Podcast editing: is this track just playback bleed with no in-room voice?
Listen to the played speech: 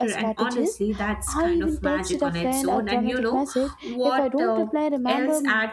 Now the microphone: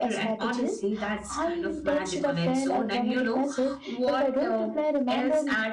Yes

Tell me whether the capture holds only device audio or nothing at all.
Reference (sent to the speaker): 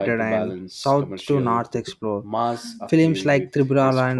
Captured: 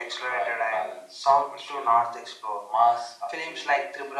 Yes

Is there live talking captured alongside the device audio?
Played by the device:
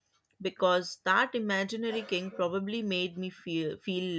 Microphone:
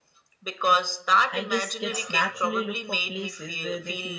Yes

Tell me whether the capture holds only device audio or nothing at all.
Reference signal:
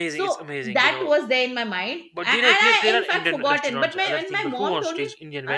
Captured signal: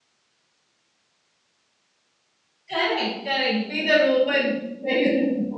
No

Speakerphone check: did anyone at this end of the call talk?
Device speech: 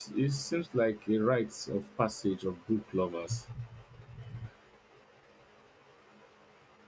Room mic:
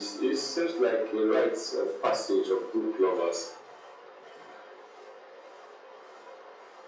No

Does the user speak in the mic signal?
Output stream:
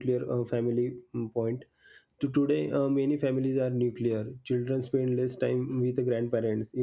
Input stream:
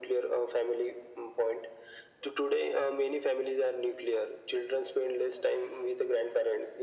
No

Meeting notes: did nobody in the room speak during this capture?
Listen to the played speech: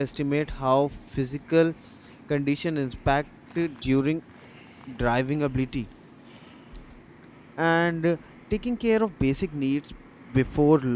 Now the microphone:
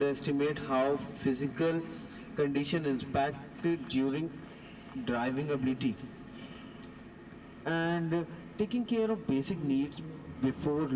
No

